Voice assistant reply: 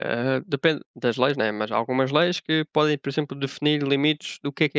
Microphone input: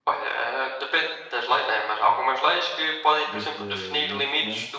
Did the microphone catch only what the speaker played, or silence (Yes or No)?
No